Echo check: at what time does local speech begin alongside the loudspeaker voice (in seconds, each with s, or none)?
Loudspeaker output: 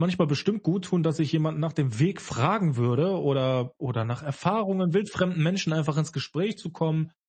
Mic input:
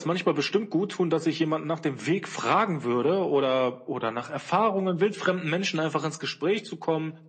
none